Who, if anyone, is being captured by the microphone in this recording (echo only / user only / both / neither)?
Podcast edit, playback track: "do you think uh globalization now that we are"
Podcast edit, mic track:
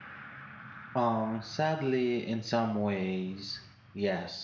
user only